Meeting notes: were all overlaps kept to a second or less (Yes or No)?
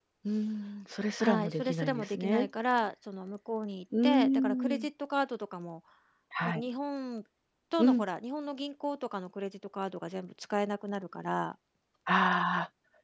No